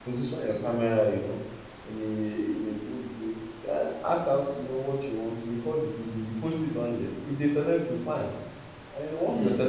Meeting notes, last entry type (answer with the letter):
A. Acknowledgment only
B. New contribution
A